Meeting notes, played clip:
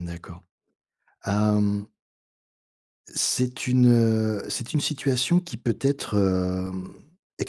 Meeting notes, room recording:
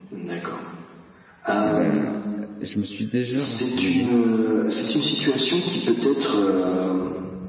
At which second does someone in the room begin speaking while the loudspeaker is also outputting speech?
1.6 s

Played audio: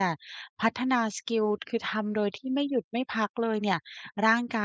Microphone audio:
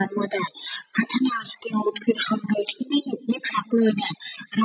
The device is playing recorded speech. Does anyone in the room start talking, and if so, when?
none

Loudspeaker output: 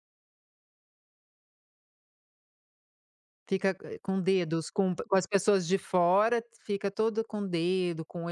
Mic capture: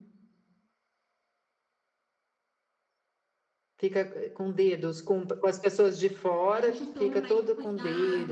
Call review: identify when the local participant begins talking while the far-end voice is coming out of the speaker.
6.5 s

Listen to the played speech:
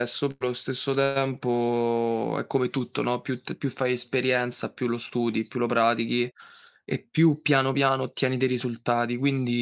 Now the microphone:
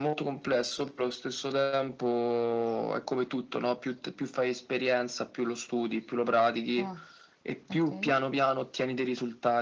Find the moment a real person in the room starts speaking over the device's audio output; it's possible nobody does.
6.8 s

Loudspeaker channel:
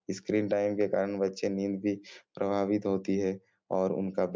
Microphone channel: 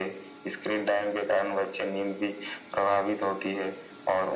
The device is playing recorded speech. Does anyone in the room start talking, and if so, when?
none

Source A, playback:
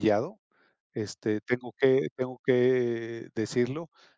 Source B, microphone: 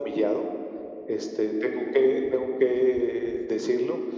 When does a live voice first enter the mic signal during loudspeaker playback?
none

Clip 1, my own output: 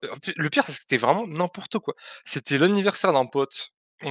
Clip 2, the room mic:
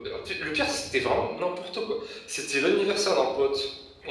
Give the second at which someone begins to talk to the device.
none

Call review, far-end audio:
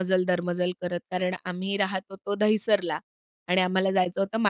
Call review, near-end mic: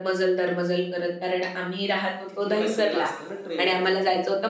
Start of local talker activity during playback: 2.3 s

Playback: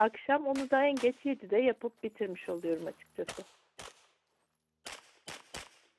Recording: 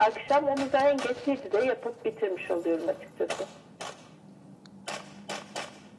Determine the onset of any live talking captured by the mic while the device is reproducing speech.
none

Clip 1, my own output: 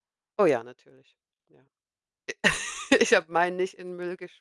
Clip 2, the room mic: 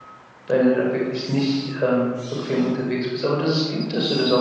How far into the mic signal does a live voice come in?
0.5 s

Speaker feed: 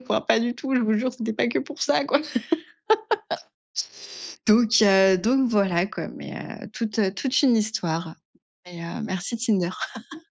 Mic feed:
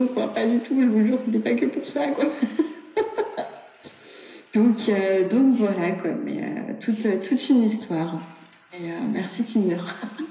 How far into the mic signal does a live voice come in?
none

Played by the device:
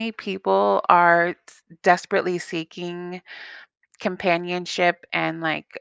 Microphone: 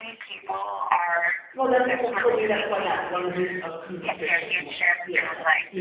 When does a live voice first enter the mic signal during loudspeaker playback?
1.5 s

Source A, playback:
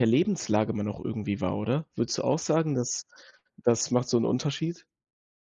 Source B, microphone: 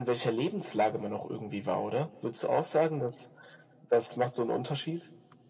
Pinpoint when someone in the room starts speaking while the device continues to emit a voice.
none

